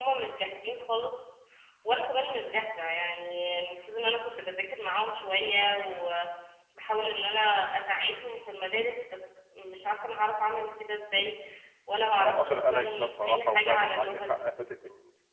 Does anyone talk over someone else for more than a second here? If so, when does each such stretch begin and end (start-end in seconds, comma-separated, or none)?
12.2-14.4